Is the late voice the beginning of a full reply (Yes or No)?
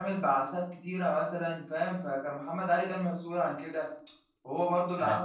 No